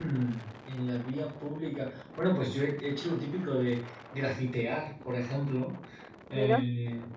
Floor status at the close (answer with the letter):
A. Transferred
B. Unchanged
B